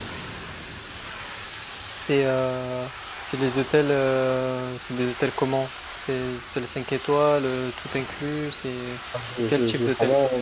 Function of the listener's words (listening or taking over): taking over